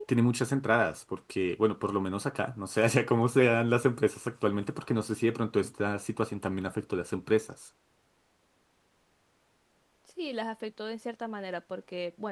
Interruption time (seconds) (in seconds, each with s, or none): none